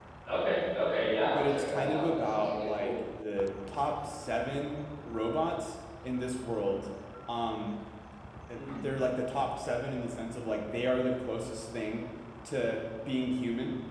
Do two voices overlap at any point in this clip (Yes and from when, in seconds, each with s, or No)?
Yes, from 1.2 s